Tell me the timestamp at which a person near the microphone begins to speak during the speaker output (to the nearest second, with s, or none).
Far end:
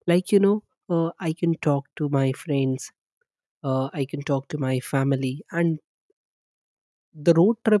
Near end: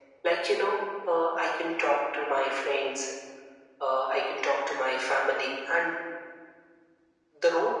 none